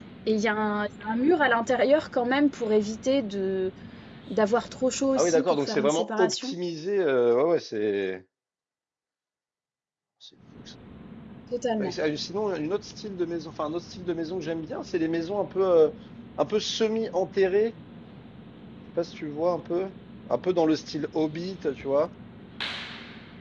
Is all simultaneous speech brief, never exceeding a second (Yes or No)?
No